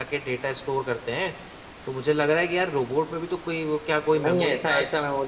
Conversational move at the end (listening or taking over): taking over